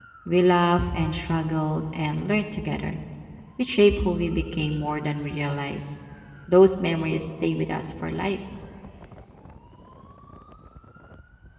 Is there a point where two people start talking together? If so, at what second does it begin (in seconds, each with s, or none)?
none